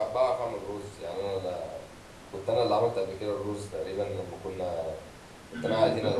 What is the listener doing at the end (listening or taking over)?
listening